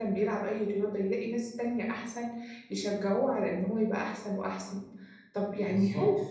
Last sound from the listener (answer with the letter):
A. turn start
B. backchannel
B